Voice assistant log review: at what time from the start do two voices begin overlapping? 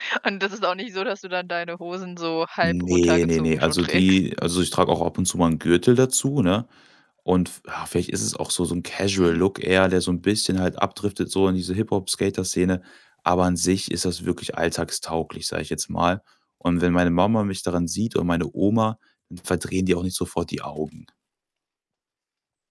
2.6 s

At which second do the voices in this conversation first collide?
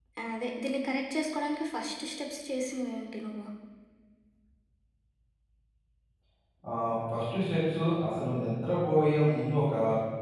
none

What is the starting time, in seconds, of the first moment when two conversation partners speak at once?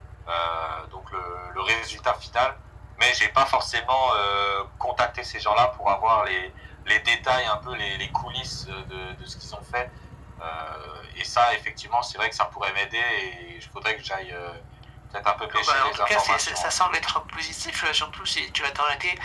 15.5 s

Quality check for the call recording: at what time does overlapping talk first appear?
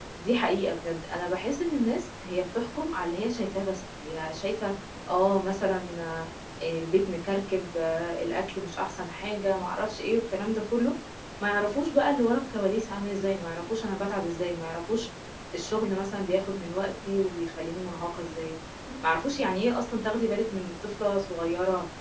none

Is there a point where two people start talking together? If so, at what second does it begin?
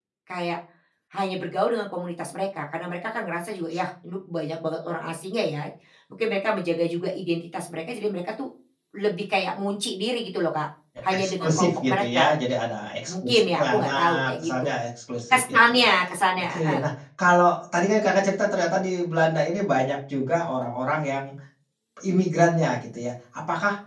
11.1 s

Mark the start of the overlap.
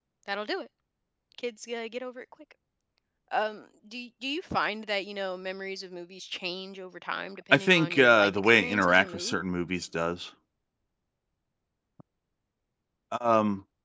7.5 s

